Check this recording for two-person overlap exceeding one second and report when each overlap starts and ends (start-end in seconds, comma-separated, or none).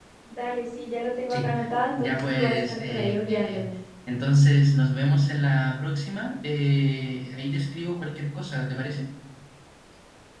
2.0-3.6